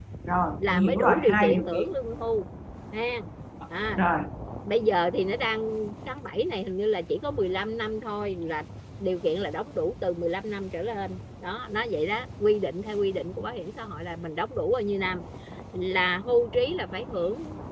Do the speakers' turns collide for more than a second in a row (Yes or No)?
Yes